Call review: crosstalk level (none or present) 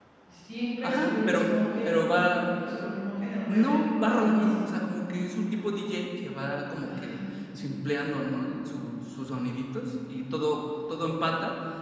present